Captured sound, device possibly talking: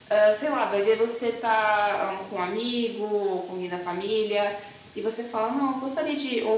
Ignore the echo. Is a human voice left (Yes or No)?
No